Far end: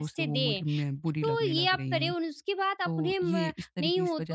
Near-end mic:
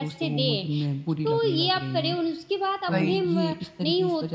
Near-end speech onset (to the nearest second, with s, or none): 3 s